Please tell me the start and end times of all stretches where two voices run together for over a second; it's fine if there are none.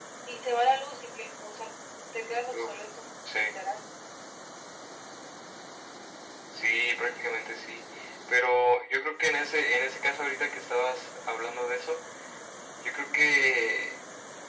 none

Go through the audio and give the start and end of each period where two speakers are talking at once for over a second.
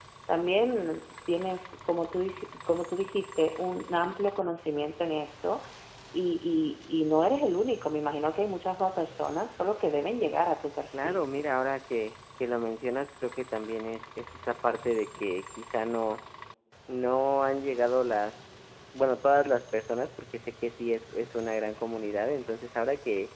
none

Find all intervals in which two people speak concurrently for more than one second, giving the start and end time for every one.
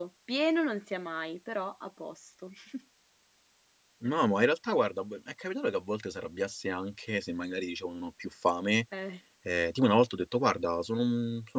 none

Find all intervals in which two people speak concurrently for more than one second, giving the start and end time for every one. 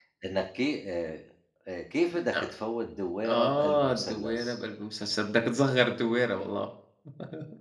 3.2-4.6

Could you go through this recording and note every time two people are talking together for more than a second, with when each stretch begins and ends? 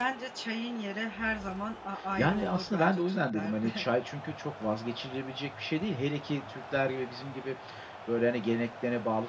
2.2-3.8

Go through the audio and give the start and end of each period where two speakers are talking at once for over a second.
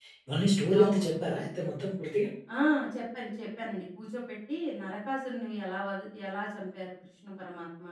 none

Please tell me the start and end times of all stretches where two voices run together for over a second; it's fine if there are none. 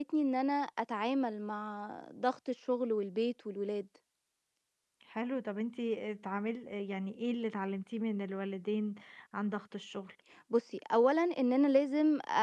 none

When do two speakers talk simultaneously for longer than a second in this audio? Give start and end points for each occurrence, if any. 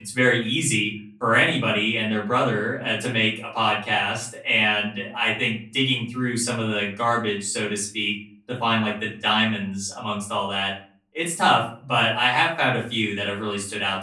none

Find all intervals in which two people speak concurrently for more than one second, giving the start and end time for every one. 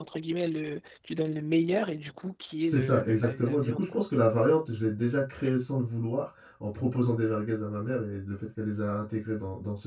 2.6-4.0

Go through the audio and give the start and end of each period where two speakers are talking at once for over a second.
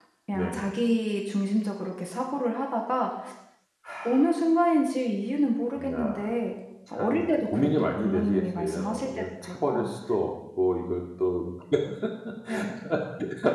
6.9-9.9

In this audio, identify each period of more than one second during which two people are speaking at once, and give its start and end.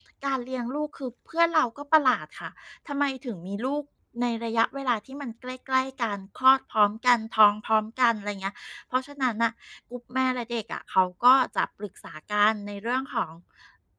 none

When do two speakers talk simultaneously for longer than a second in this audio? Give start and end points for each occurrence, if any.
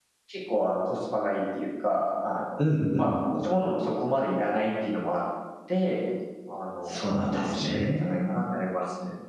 6.8-8.3

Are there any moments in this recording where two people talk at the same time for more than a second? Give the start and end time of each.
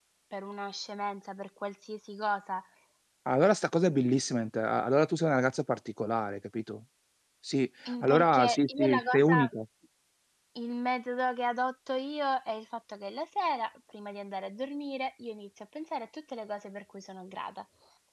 7.9-9.5

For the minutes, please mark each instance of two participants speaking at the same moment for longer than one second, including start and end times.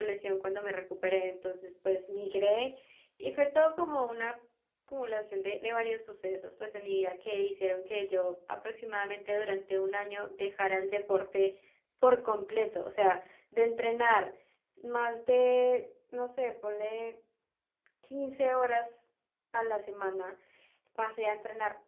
none

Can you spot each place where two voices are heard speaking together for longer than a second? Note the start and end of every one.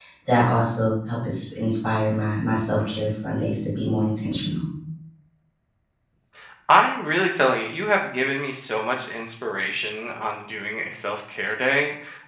none

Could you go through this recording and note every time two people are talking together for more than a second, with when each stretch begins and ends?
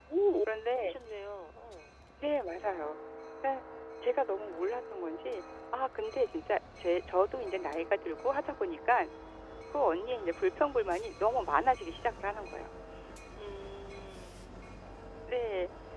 none

